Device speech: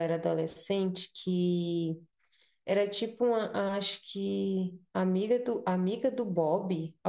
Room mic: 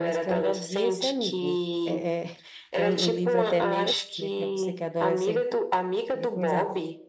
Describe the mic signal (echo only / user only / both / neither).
both